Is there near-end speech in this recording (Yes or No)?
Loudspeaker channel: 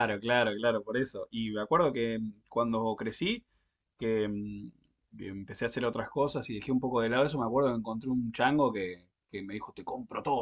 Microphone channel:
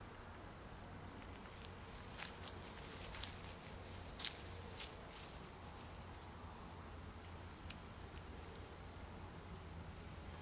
No